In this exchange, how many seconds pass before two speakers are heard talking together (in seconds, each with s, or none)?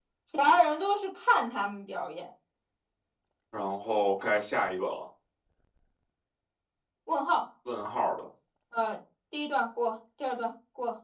none